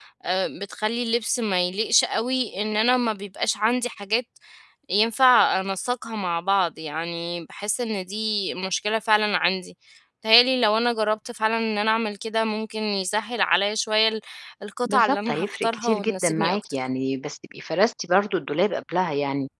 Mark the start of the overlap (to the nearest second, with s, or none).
15 s